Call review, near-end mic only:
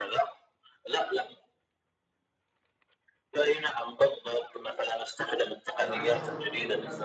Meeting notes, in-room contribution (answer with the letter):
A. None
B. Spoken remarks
B